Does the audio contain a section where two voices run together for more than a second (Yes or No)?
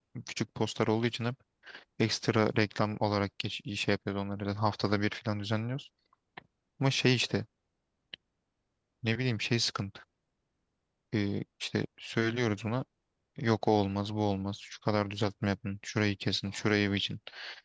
No